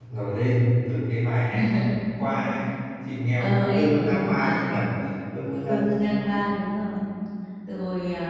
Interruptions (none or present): present